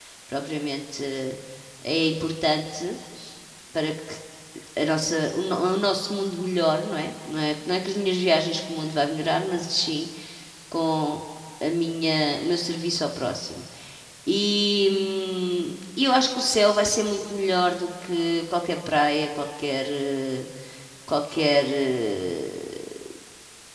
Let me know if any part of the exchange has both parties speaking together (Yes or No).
No